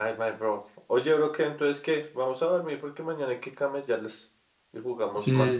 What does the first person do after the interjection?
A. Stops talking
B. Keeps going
A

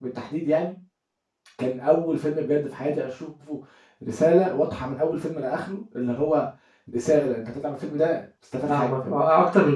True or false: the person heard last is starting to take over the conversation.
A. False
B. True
B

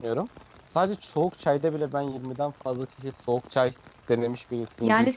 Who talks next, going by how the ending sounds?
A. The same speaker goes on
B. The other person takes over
B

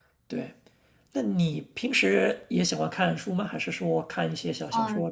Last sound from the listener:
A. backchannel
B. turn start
B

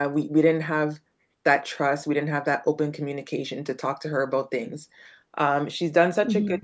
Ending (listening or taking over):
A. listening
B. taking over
A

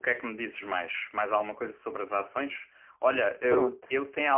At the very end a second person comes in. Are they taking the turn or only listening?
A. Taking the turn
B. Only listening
B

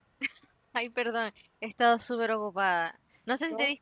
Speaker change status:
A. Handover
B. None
B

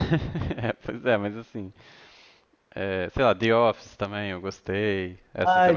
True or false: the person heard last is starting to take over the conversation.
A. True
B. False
A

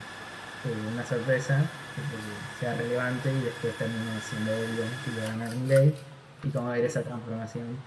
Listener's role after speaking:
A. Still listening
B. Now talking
A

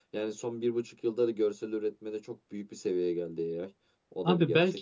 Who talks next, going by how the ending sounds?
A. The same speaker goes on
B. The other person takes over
B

